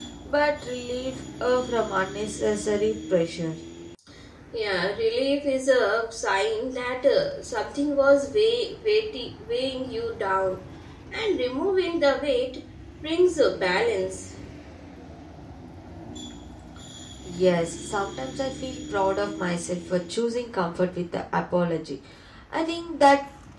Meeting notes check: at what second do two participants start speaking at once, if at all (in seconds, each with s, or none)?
none